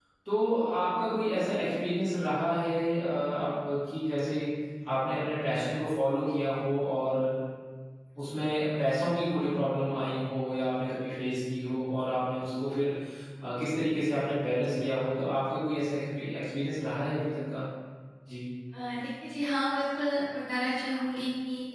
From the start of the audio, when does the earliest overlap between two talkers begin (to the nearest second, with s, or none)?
none